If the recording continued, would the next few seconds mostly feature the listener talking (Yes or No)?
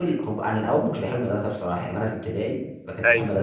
No